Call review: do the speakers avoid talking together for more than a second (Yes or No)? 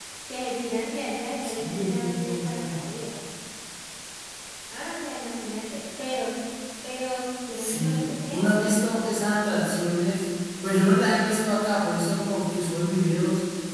No